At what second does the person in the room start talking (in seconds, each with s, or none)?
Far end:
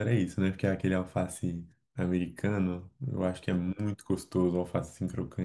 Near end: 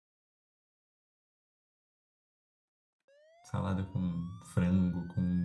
3.4 s